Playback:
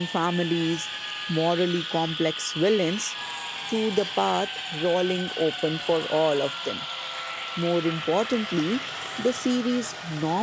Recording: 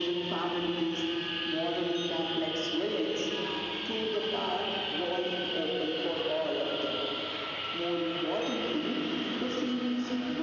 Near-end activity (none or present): none